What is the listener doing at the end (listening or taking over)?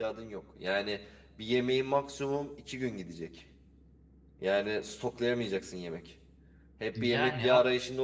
listening